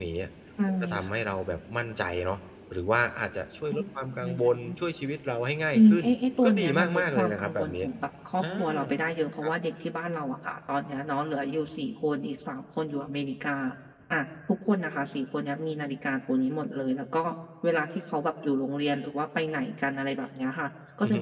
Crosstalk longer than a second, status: present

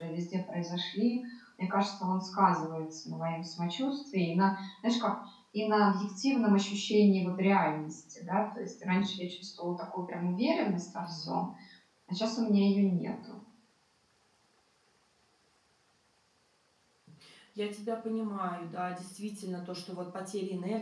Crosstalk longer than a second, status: none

